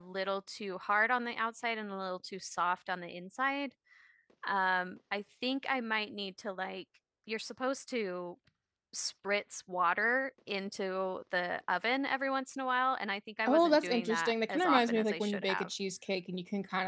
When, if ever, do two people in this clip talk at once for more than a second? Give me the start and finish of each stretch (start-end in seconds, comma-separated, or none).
13.5-15.7